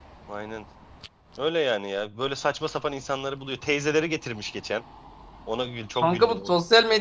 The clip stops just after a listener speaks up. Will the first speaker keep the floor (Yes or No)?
No